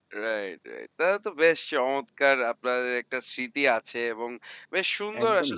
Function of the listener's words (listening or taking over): listening